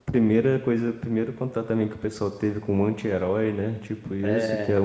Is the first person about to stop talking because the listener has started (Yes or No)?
No